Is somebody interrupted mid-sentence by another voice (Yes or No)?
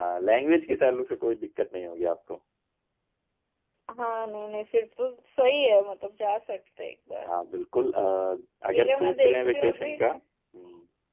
Yes